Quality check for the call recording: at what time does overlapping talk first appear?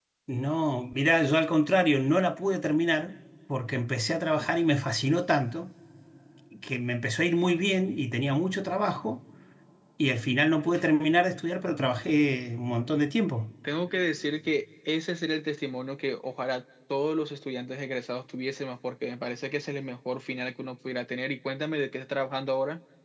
none

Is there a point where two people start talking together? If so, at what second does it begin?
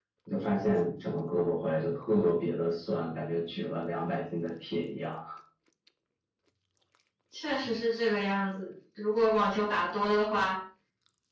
none

